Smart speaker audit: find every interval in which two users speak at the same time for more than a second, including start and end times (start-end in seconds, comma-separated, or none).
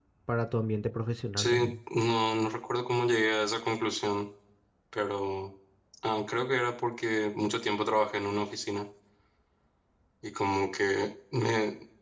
none